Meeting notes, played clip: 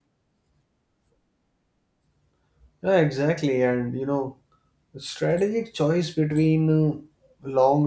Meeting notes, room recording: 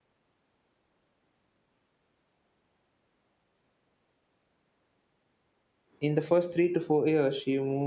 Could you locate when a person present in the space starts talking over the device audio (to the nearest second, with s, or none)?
6 s